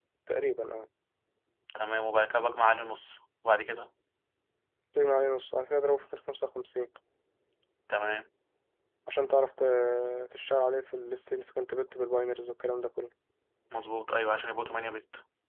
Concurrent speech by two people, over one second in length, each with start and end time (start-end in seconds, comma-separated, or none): none